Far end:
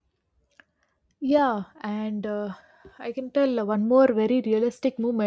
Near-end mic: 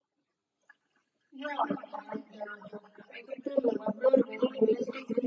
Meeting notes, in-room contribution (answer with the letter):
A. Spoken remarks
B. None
B